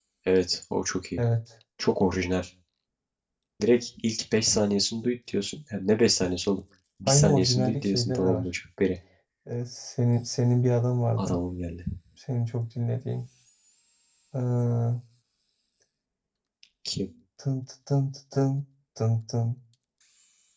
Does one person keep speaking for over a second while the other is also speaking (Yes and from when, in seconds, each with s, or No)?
Yes, from 7.1 s